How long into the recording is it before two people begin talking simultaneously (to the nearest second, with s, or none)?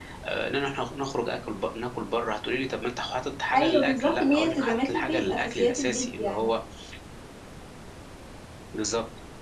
4 s